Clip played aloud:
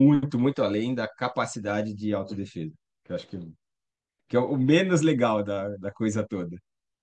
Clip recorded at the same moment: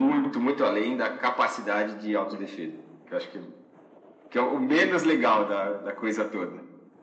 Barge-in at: none

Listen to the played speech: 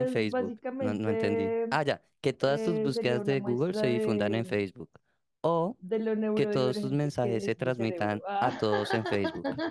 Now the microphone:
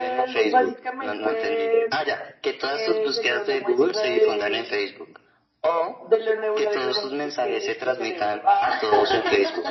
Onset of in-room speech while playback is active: none

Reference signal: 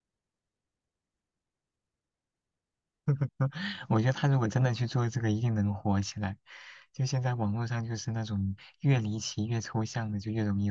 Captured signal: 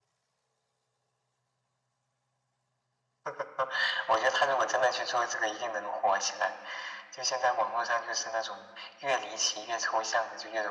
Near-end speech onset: none

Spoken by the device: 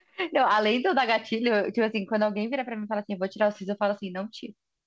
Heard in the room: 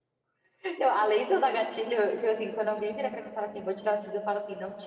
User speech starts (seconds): none

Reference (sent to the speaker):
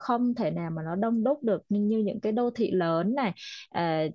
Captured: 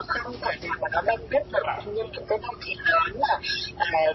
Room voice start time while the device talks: 1 s

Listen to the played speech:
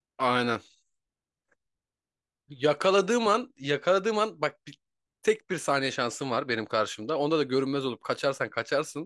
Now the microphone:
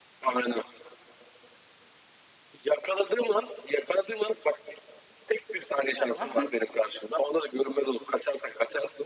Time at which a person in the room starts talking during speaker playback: 6 s

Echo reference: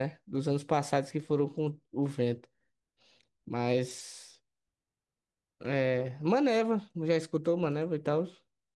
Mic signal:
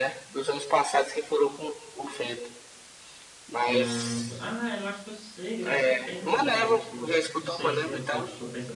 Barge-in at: 4 s

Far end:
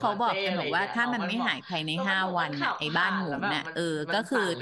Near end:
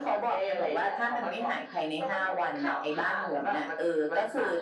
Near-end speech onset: none

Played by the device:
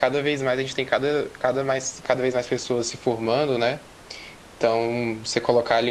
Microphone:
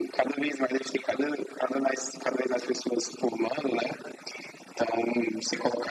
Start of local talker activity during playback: none

